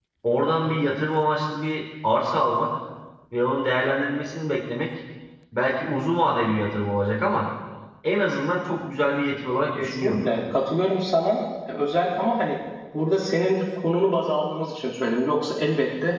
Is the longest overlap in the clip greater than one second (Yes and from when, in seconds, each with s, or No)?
No